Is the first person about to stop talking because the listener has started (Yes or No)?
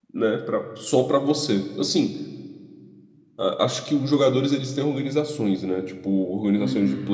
No